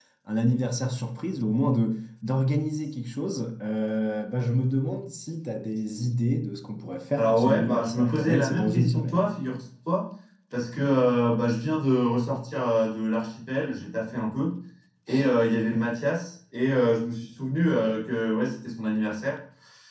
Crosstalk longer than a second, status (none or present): present